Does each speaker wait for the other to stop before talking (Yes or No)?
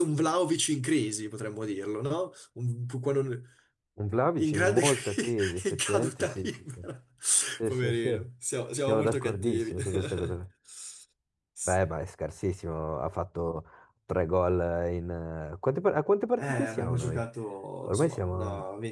No